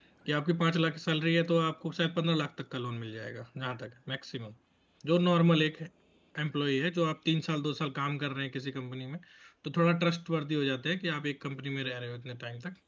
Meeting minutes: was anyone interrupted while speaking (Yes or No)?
No